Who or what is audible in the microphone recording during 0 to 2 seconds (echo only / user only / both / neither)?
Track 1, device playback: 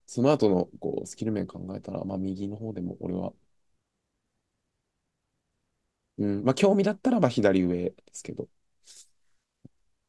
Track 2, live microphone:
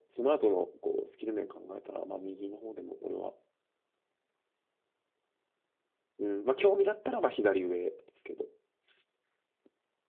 echo only